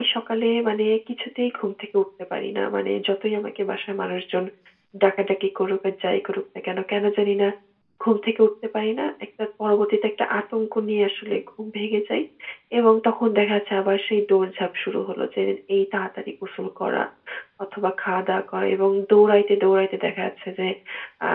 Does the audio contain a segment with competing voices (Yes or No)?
No